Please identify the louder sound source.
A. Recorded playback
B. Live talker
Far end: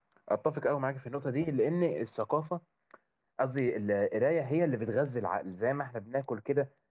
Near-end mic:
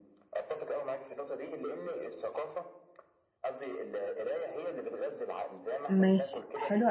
B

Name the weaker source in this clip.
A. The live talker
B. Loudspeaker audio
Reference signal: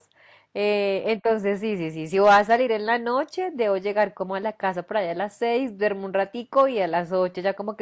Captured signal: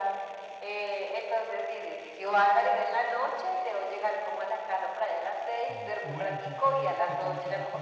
A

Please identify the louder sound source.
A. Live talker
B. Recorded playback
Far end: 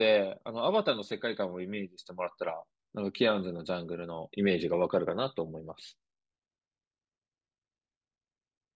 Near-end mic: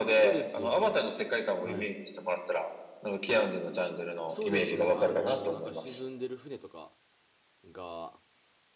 B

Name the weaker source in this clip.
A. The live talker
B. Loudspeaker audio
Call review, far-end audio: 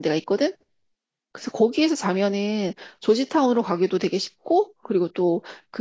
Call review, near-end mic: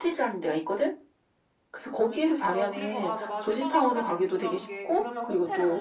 A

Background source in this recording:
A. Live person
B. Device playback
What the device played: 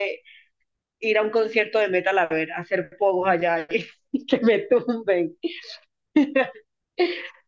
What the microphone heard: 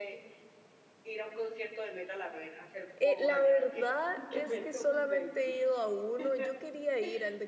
B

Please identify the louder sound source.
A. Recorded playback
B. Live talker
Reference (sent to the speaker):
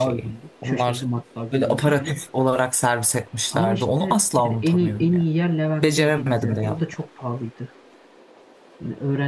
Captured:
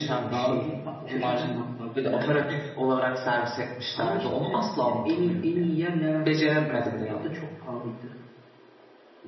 A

